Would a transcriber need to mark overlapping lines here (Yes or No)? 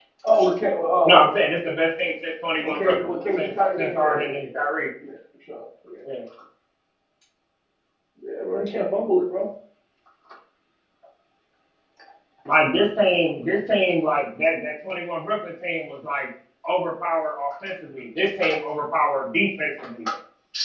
Yes